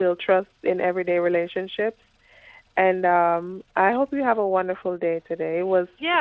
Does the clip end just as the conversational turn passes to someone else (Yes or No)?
Yes